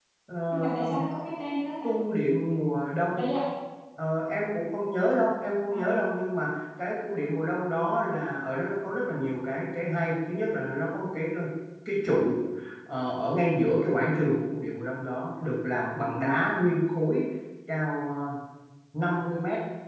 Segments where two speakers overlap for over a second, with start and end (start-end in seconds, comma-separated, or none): none